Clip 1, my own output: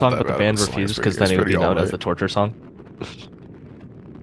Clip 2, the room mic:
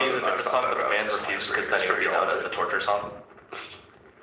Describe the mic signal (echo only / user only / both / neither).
echo only